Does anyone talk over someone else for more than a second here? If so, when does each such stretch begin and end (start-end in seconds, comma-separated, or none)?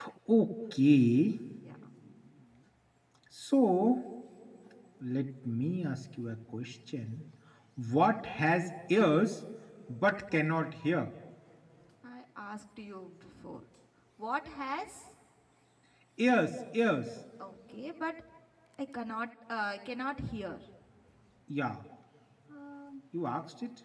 none